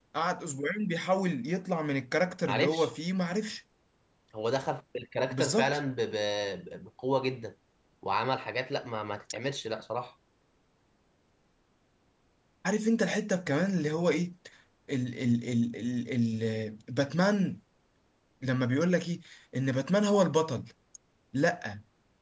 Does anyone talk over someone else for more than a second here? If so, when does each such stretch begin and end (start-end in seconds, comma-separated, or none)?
none